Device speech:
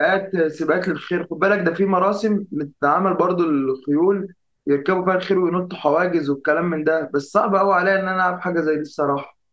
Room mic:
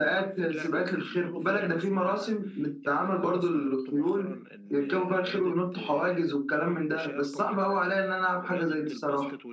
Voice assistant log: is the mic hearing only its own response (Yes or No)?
No